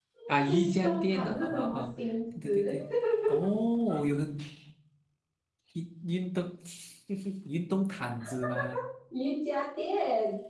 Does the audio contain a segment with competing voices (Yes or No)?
Yes